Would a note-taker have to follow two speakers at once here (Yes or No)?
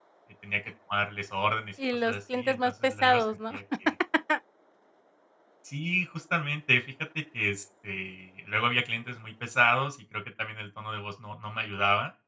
Yes